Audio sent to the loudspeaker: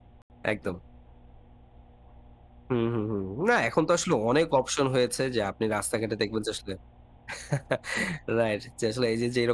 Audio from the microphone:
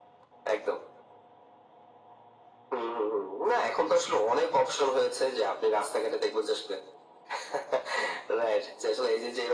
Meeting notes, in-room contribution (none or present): none